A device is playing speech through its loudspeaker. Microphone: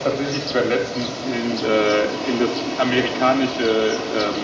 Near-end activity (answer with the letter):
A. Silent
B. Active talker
A